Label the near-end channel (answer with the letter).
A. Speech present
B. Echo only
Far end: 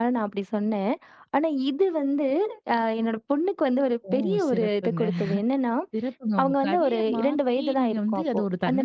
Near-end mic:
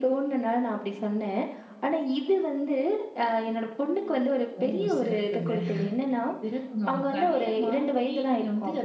B